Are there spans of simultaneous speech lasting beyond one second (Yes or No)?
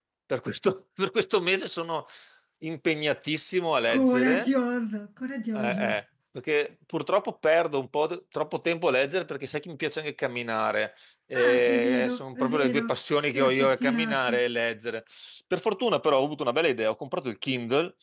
Yes